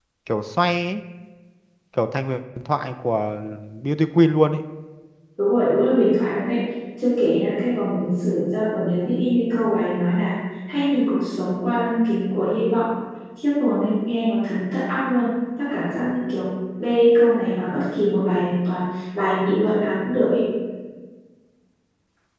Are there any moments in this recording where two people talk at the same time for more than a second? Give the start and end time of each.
none

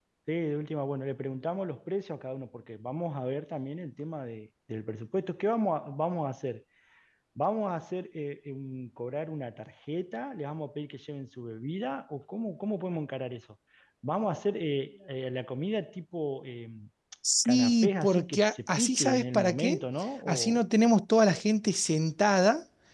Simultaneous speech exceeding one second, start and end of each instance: 17.4-19.8

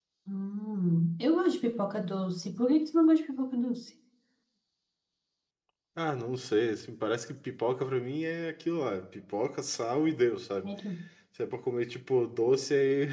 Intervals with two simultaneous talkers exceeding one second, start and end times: none

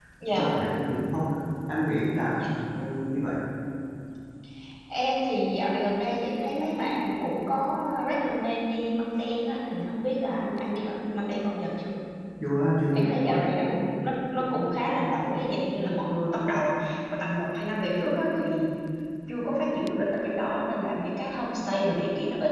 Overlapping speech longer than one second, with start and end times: none

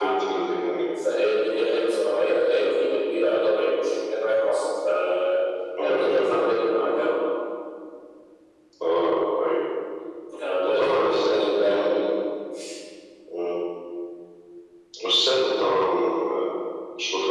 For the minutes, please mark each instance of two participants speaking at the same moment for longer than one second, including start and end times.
10.7-12.0

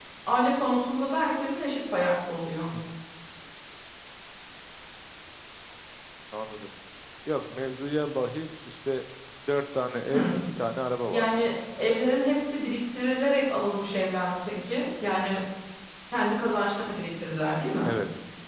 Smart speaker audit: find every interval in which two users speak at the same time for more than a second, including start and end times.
none

